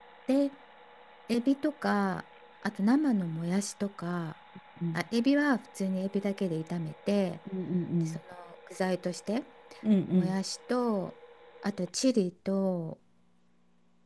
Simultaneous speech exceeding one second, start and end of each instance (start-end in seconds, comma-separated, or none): none